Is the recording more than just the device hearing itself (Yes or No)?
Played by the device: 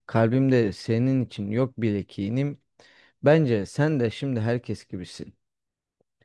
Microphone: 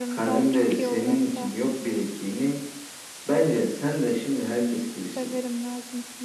Yes